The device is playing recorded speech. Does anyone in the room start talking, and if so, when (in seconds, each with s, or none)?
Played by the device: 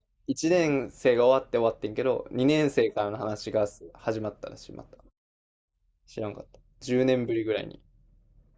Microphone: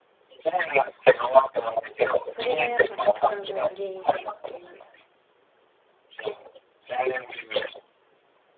2.2 s